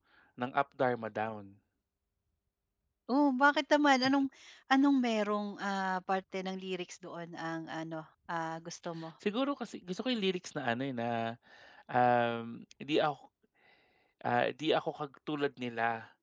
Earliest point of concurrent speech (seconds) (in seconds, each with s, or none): none